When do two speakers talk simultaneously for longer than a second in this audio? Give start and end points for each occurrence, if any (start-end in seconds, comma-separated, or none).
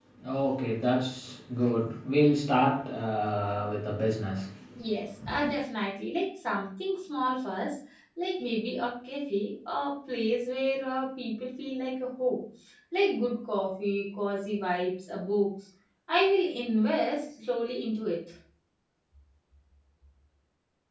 none